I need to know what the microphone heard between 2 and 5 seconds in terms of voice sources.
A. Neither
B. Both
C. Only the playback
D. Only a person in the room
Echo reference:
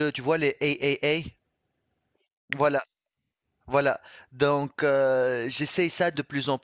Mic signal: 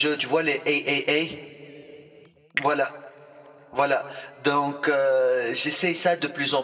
C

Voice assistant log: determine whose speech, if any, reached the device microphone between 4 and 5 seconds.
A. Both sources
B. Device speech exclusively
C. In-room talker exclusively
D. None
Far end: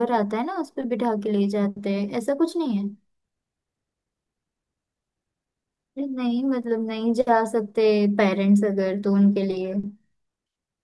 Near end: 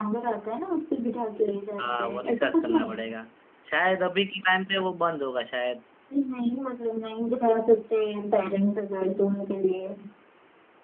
C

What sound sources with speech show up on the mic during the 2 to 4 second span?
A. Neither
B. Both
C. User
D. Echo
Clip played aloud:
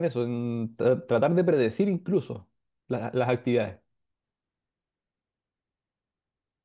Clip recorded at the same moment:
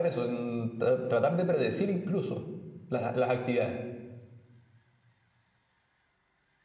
D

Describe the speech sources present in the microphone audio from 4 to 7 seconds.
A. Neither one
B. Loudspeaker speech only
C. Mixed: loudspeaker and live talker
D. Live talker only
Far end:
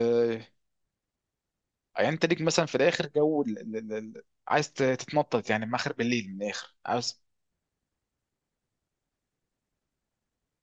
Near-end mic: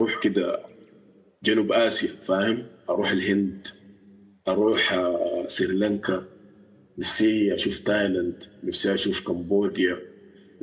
D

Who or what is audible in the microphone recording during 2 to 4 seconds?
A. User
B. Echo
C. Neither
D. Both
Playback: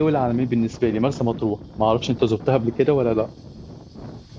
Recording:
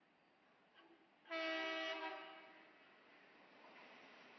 C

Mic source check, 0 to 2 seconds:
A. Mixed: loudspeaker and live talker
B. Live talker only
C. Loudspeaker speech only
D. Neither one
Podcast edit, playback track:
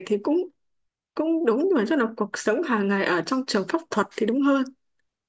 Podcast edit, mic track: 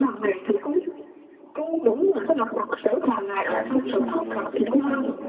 C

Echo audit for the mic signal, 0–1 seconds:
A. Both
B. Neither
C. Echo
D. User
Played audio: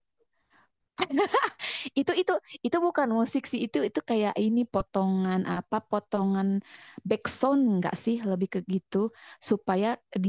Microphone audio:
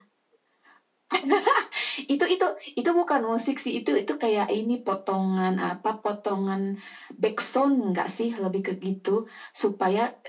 B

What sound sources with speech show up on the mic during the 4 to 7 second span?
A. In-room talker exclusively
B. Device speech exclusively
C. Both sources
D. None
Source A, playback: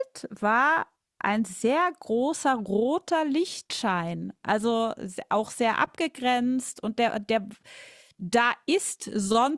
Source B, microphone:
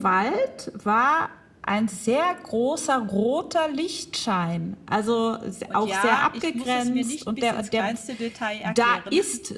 C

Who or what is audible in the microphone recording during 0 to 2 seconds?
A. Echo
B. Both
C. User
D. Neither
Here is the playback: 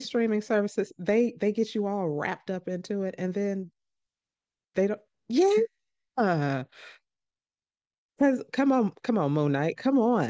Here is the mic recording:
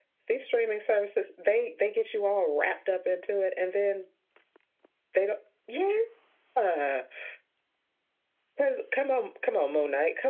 A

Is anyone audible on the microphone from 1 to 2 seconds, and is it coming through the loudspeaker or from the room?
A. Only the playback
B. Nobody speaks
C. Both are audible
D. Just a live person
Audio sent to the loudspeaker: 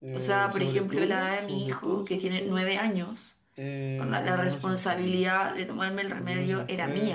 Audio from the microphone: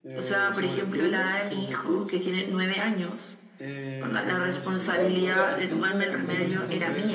A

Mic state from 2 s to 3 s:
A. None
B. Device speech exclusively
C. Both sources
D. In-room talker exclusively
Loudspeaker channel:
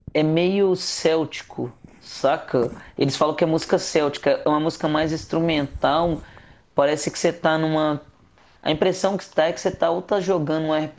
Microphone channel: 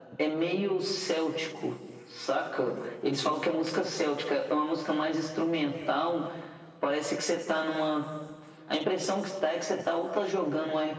B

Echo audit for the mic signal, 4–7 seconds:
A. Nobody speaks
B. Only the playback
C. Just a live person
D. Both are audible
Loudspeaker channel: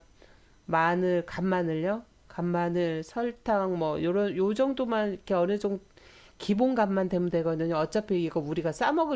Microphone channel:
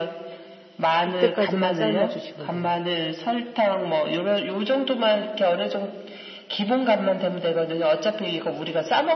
B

